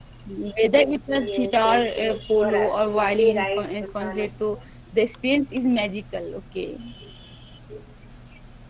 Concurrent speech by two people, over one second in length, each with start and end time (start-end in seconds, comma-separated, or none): 0.8-4.3